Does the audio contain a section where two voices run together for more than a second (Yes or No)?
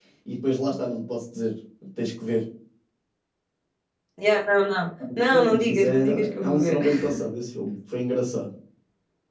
Yes